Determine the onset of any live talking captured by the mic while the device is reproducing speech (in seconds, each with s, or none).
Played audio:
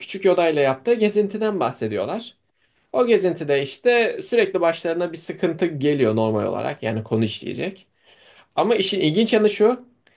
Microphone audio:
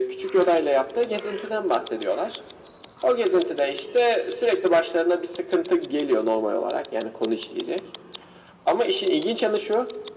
none